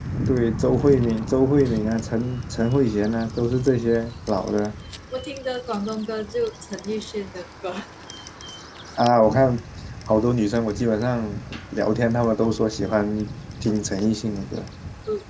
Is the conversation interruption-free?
Yes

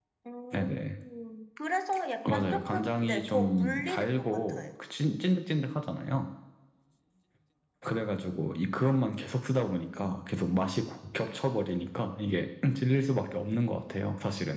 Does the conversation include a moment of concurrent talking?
Yes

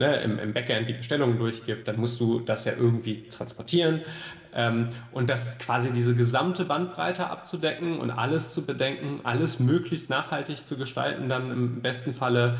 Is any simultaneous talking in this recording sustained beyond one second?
No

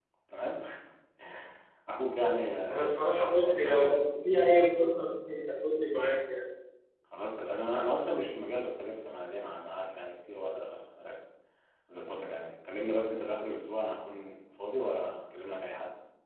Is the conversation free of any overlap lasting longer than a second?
No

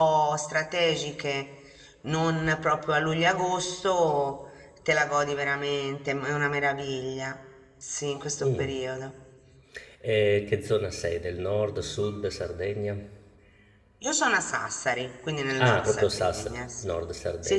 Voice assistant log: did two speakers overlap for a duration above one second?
Yes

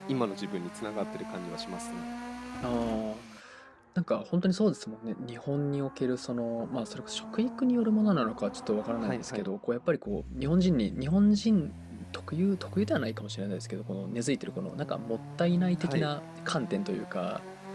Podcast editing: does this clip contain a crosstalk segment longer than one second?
No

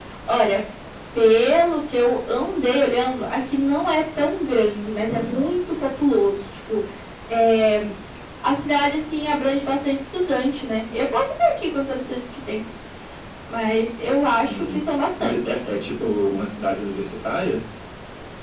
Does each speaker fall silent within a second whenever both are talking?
Yes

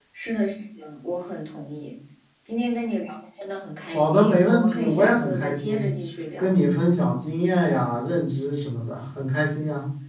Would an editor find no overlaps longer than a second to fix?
No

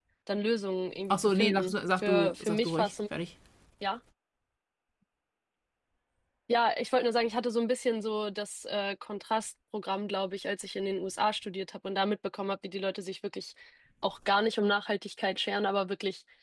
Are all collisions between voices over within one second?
No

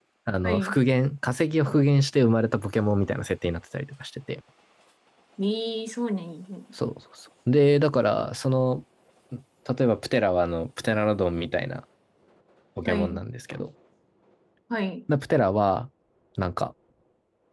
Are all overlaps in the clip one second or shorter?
Yes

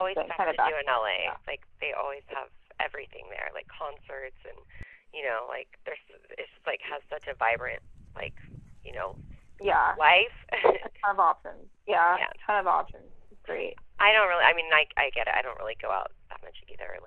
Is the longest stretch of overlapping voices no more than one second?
No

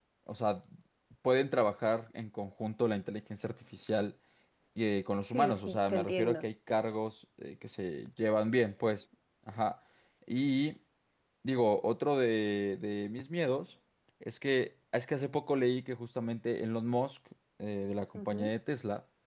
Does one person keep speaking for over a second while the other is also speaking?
Yes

